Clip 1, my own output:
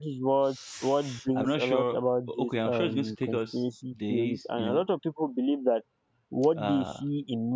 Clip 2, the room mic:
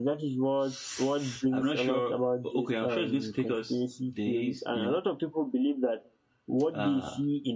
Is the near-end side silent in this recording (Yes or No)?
Yes